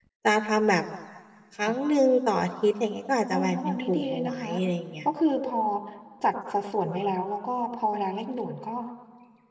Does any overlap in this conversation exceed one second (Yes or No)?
Yes